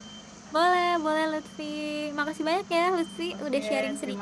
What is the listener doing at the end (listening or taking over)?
taking over